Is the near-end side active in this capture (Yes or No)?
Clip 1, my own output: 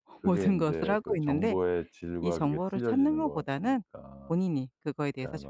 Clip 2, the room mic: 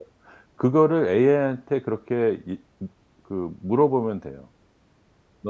Yes